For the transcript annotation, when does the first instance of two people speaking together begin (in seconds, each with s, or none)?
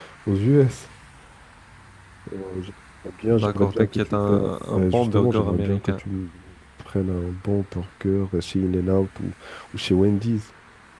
3.4 s